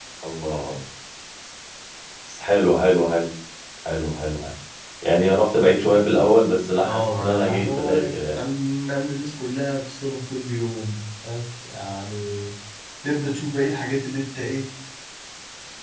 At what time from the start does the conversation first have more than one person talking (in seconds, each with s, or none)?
6.8 s